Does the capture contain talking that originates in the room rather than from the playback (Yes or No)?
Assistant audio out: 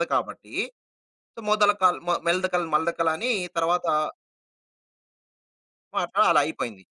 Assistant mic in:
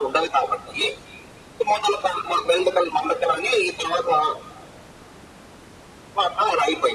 No